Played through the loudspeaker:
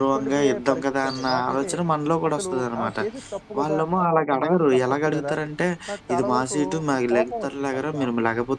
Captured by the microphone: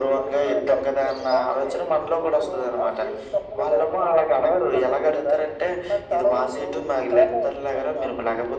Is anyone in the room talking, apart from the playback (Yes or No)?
No